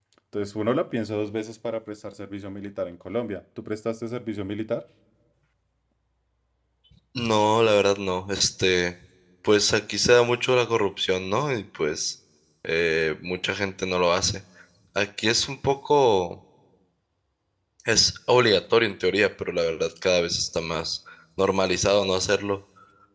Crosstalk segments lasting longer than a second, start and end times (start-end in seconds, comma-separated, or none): none